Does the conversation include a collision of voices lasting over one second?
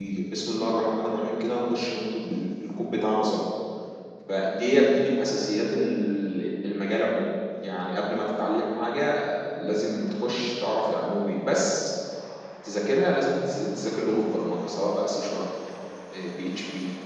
No

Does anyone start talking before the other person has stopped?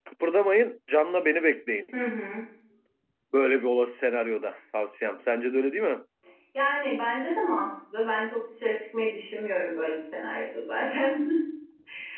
No

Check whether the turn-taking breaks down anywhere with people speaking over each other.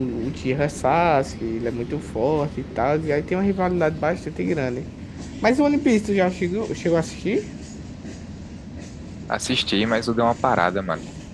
No

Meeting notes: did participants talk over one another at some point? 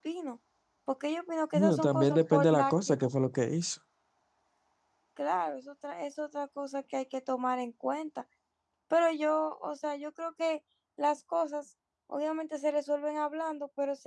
Yes, from 1.5 s

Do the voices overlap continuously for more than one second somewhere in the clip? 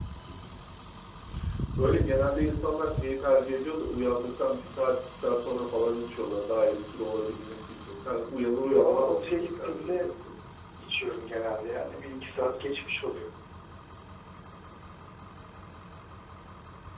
Yes, from 8.6 s

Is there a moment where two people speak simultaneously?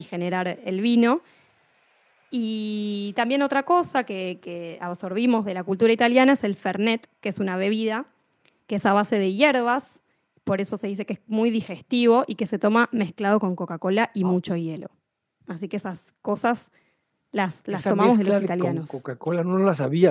Yes, from 17.7 s

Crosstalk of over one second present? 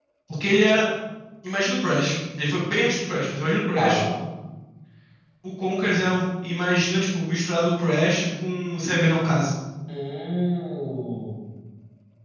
No

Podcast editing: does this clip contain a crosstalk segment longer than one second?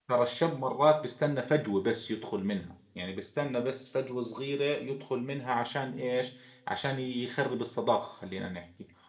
No

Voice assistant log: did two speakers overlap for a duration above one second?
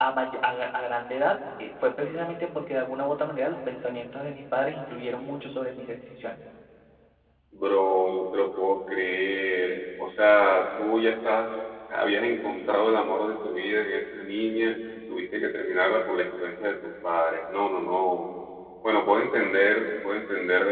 No

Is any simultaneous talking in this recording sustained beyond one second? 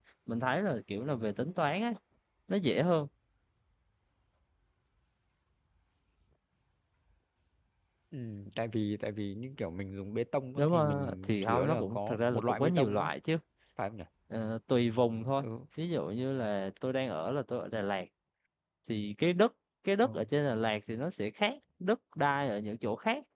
Yes, from 10.6 s

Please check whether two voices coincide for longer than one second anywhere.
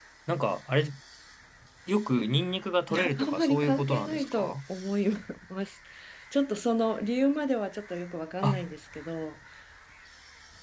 Yes, from 2.9 s

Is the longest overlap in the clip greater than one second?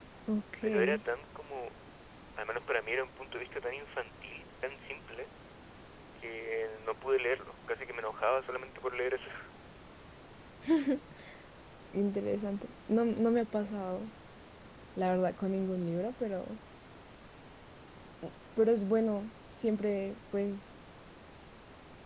No

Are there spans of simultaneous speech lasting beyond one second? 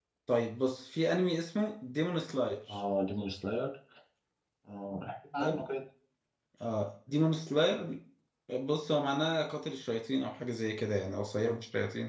No

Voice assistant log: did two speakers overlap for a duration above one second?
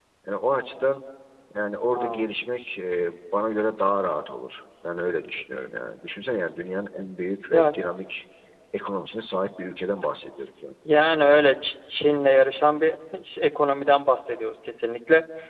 No

